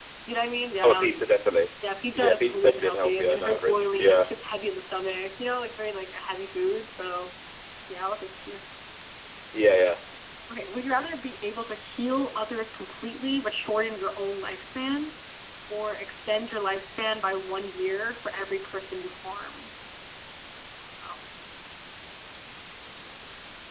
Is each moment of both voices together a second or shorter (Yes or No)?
No